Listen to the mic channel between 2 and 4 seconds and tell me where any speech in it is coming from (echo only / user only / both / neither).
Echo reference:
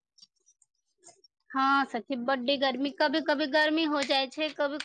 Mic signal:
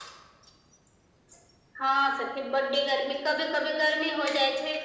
echo only